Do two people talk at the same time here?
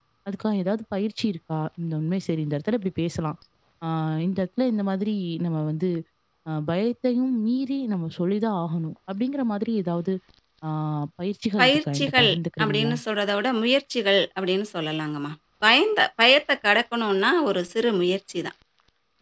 Yes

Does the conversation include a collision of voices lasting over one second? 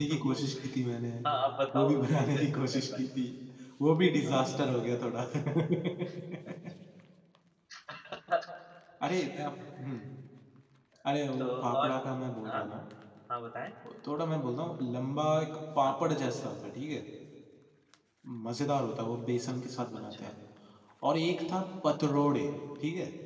Yes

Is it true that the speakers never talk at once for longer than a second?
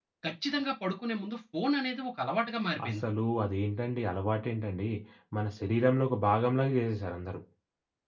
Yes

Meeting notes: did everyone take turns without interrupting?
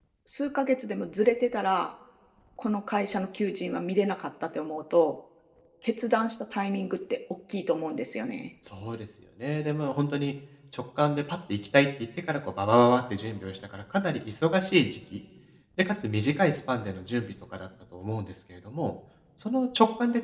Yes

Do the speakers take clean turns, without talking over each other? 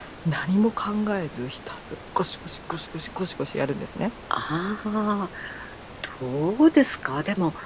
Yes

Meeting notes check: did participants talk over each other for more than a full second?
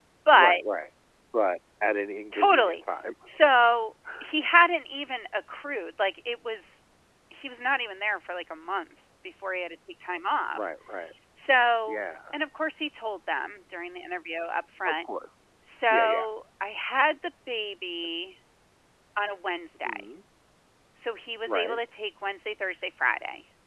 No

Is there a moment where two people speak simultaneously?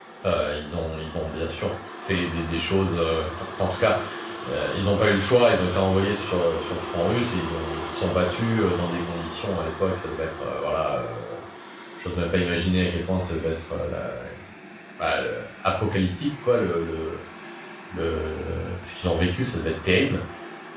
No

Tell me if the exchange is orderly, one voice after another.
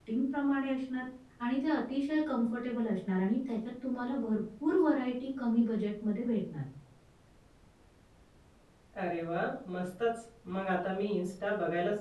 Yes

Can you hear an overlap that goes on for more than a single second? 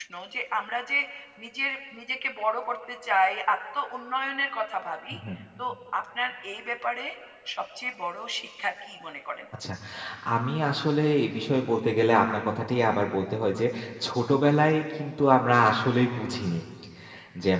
No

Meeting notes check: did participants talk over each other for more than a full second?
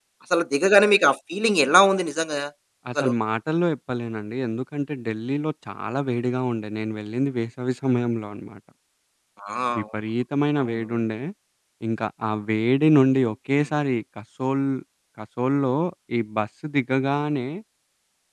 No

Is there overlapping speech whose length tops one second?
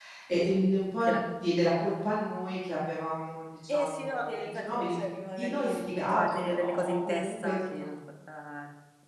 Yes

